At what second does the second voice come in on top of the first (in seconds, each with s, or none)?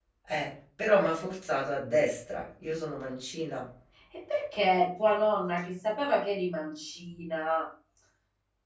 none